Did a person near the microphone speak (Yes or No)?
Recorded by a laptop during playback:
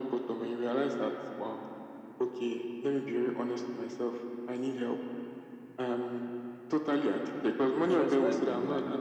Yes